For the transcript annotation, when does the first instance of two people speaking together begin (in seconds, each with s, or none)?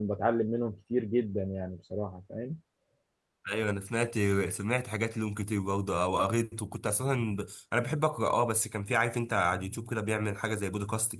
none